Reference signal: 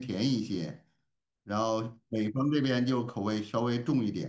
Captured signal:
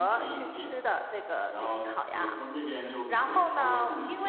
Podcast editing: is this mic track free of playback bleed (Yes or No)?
No